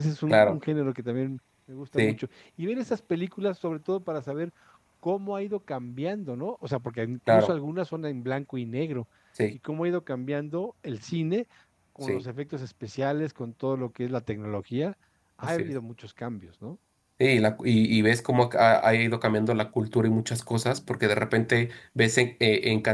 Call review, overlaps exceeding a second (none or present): none